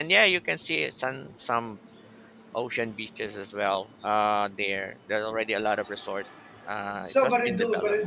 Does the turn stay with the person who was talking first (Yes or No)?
No